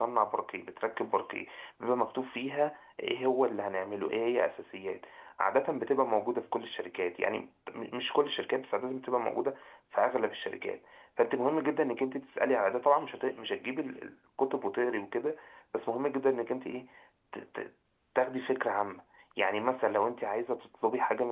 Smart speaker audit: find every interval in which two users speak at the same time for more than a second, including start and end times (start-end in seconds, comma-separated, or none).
none